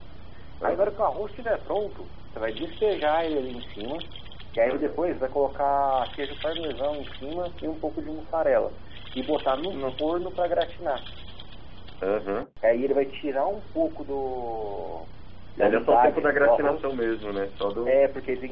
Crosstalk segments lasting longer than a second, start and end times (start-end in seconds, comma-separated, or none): 15.6-16.8